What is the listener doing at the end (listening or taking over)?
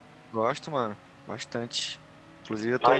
listening